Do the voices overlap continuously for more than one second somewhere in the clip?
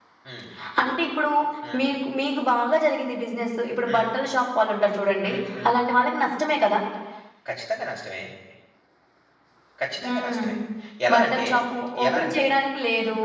No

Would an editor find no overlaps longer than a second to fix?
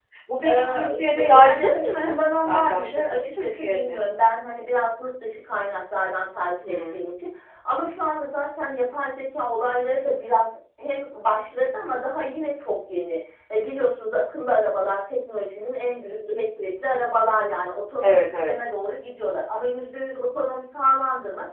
No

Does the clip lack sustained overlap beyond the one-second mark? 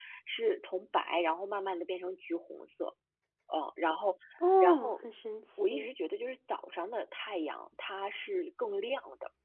Yes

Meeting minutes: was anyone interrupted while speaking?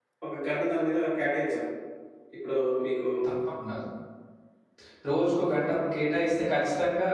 No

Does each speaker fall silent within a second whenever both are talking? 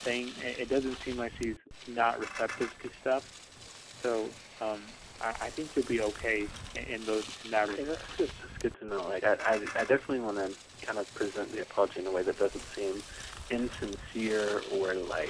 Yes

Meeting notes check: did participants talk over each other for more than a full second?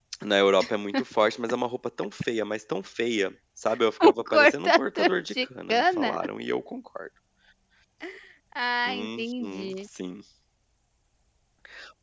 Yes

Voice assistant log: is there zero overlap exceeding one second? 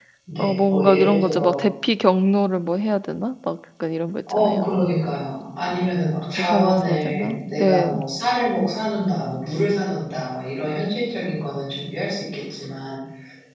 No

